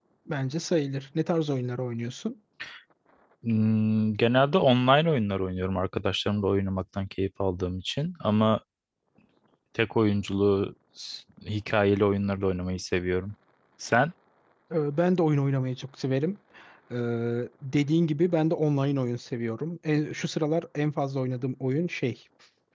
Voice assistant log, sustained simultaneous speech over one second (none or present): none